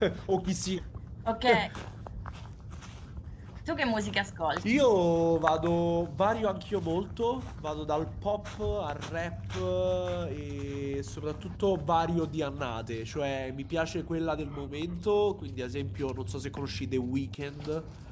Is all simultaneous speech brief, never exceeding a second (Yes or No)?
Yes